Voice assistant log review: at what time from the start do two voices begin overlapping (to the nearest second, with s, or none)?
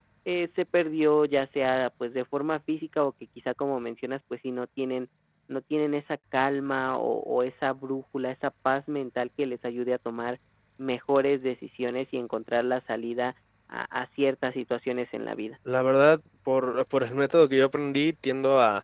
none